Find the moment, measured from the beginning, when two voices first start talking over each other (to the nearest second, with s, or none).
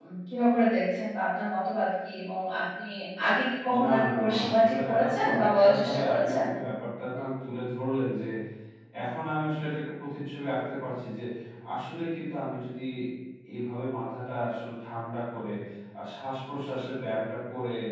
4 s